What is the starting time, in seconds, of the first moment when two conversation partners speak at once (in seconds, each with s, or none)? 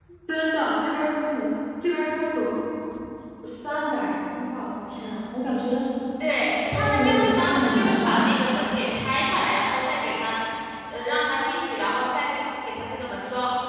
6.7 s